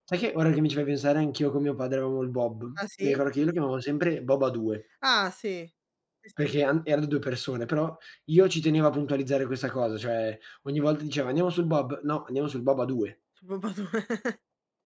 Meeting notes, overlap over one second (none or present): none